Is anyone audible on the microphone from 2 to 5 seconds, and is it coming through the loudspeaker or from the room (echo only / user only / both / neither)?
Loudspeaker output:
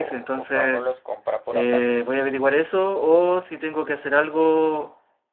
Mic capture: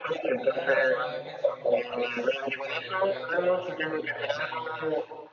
both